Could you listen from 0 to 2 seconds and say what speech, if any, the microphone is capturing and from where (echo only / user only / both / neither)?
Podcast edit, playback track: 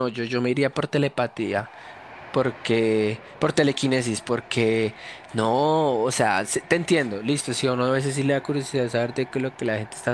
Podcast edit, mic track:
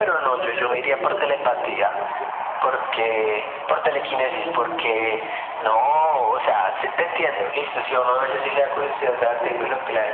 both